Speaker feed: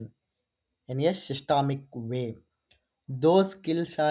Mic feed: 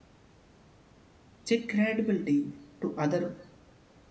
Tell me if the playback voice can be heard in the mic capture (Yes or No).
No